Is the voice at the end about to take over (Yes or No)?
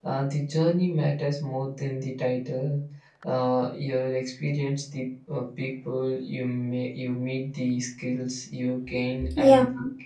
No